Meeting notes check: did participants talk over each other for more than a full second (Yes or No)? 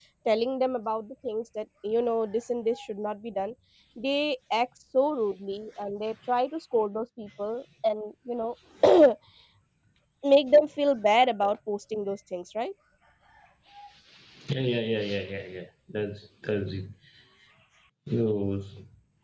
No